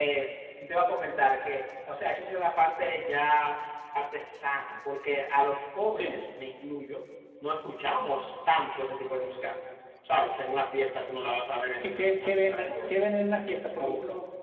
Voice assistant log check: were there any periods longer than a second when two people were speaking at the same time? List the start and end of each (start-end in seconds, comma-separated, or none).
11.8-13.1